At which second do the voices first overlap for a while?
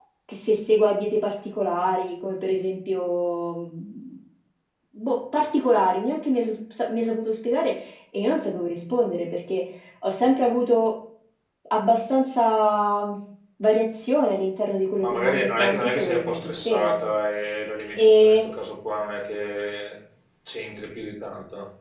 15.0 s

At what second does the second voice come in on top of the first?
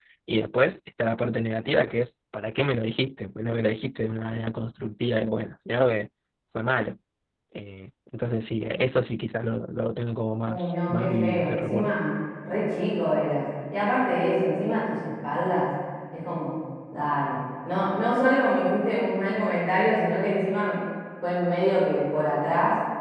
10.5 s

